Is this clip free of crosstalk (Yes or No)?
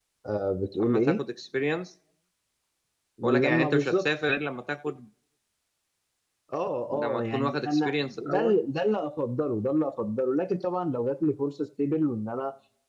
No